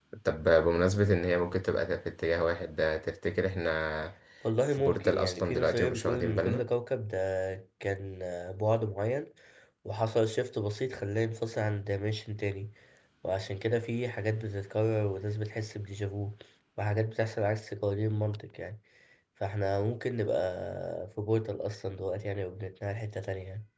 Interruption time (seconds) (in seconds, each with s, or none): 4.7 s